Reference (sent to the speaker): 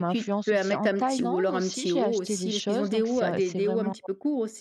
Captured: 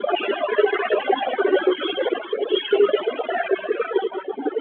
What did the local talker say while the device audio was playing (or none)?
none